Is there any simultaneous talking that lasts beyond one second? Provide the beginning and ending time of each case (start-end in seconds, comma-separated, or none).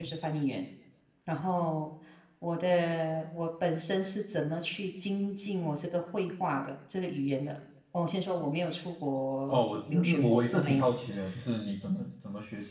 9.5-10.9